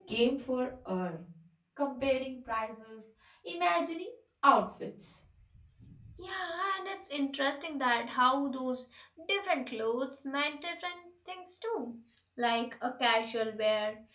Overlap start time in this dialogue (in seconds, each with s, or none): none